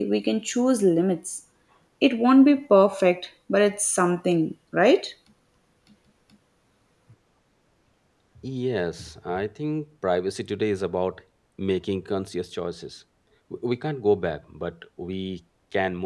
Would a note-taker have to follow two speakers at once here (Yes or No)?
No